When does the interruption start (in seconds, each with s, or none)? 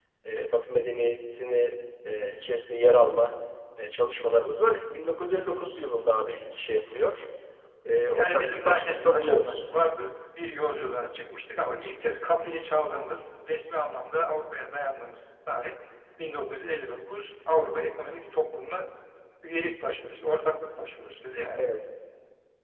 8.1 s